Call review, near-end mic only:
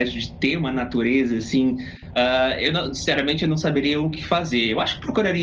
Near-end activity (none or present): none